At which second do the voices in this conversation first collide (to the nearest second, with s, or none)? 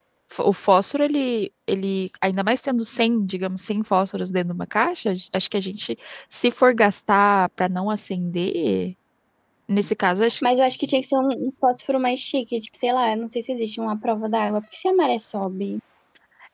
none